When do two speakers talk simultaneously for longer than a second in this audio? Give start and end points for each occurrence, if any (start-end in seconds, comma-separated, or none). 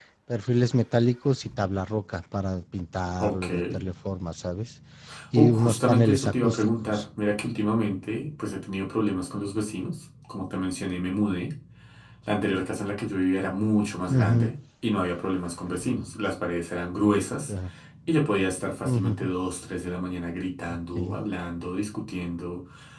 5.3-7.0